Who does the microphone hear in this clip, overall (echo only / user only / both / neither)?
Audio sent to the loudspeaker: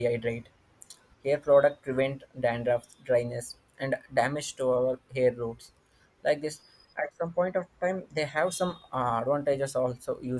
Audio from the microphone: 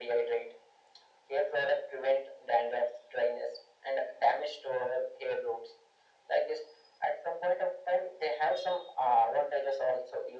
echo only